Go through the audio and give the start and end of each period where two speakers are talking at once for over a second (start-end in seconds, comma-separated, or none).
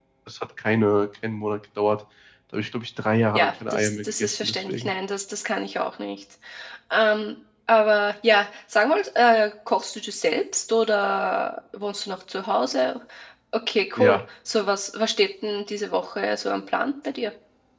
3.4-4.9